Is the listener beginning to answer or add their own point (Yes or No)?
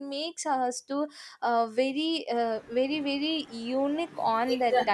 Yes